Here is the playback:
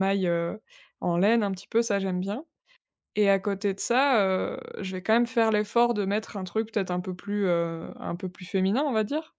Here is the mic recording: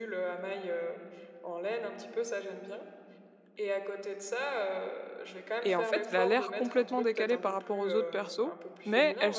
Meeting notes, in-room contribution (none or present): present